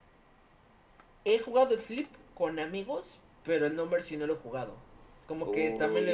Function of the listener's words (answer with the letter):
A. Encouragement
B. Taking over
B